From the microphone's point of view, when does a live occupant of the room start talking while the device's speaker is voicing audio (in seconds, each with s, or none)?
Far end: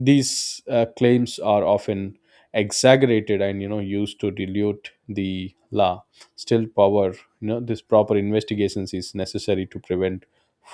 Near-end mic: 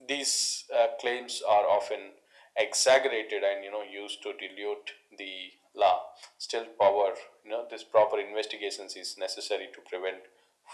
none